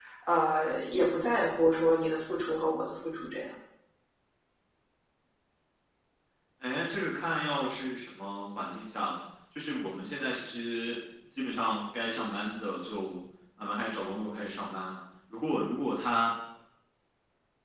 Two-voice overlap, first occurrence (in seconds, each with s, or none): none